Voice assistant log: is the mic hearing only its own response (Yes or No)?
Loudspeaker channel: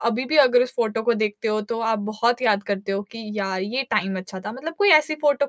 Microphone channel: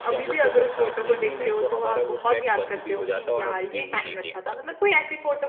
No